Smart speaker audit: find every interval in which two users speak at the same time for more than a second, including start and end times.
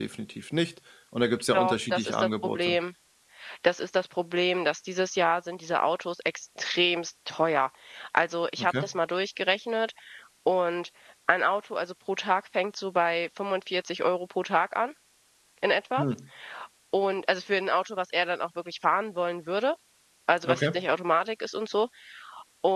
1.5-2.8

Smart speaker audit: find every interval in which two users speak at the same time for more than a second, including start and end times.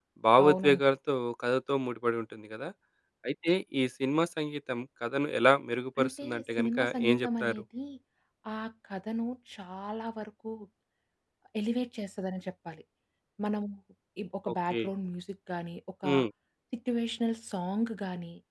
6.0-7.6

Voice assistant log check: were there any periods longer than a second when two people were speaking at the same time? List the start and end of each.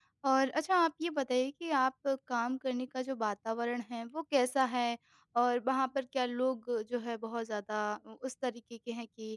none

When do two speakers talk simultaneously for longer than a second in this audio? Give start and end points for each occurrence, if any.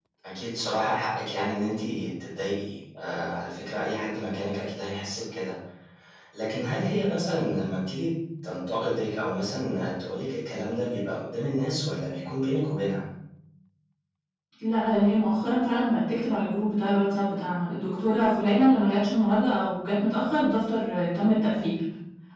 none

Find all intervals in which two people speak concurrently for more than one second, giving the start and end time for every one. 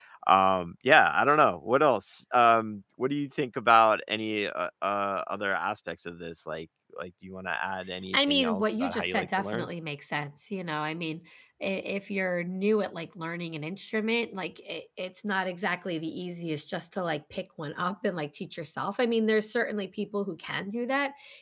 8.1-9.7

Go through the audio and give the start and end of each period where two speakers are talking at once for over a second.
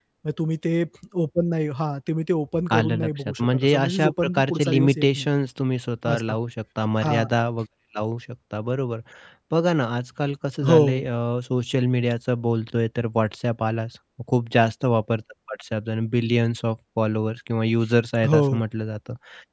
2.7-5.3

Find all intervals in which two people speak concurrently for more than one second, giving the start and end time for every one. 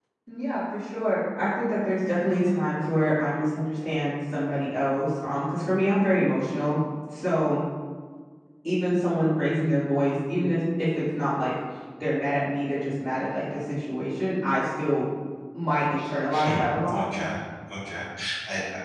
none

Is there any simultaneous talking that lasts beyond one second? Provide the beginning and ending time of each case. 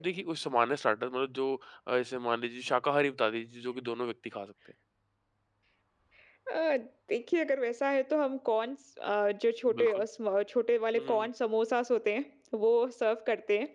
none

